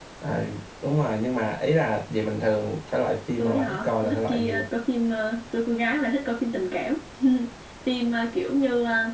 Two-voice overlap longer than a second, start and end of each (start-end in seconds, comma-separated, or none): 3.4-4.7